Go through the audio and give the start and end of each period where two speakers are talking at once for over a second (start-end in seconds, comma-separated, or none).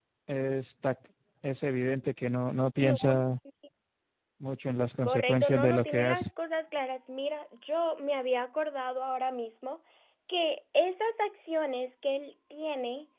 5.0-6.3